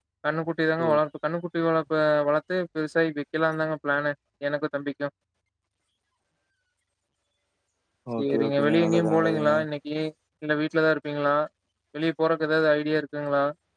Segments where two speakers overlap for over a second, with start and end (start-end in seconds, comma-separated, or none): 8.2-9.5